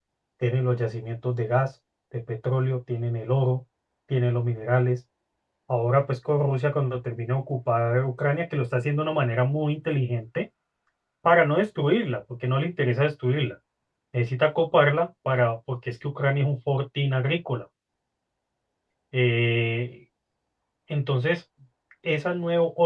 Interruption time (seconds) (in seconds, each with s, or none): none